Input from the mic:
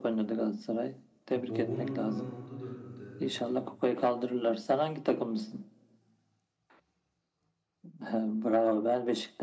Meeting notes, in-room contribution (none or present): present